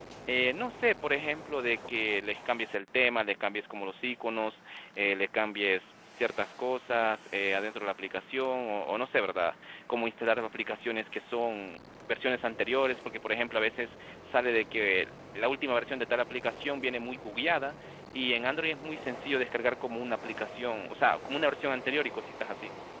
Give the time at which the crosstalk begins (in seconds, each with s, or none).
none